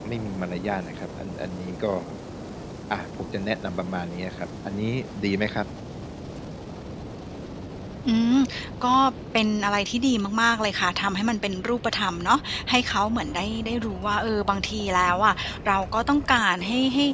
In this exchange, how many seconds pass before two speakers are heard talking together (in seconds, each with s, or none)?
none